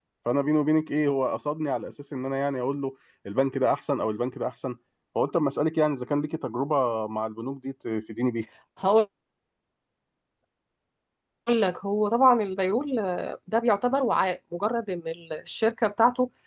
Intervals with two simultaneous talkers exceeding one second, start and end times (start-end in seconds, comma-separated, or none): none